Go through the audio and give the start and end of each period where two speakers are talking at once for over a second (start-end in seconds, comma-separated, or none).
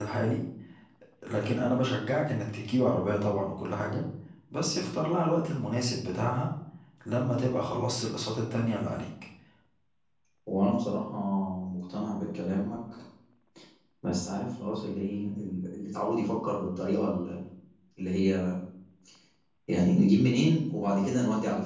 none